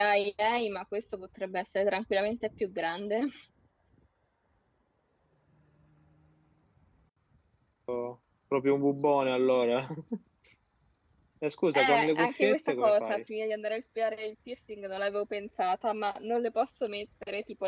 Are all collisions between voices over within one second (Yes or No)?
No